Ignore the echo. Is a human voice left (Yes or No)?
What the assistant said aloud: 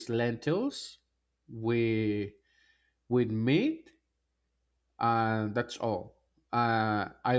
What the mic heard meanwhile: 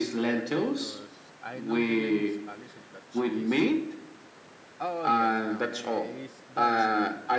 Yes